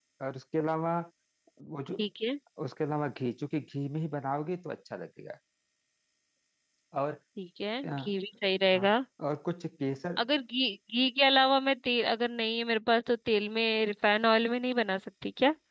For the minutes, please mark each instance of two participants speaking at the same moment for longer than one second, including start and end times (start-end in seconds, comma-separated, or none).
none